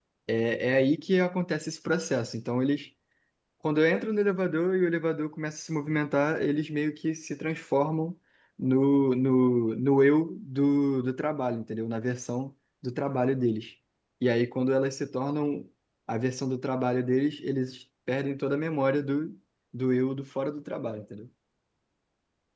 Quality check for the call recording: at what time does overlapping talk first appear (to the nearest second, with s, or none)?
none